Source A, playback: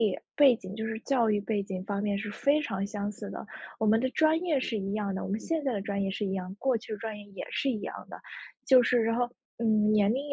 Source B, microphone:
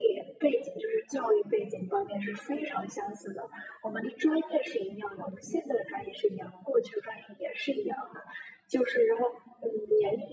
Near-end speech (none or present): none